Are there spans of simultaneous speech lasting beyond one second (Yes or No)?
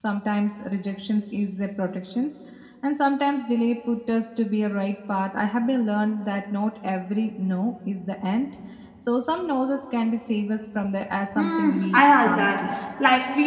Yes